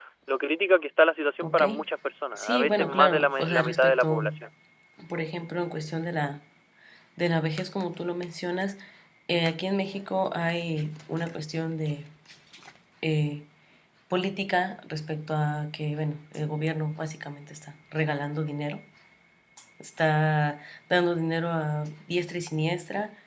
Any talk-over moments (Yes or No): Yes